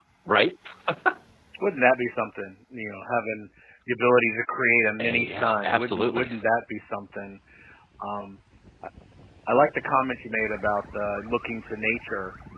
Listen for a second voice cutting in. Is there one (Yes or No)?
Yes